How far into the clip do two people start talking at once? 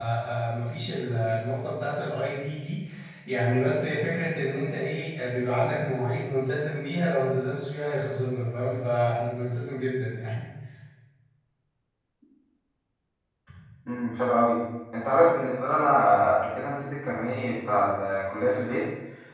none

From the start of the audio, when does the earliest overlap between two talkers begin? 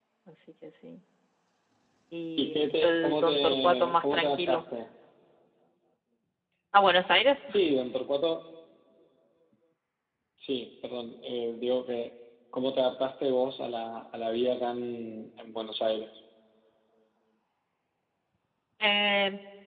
2 s

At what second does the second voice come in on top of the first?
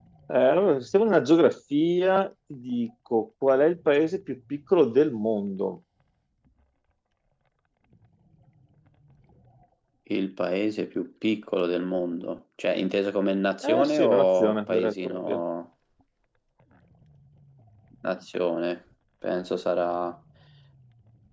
14 s

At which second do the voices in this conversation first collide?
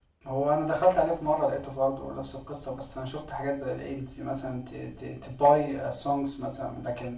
none

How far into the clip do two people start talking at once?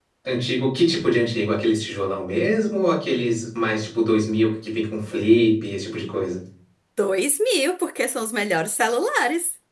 none

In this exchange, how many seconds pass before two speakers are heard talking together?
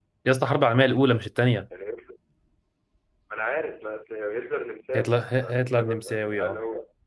5 s

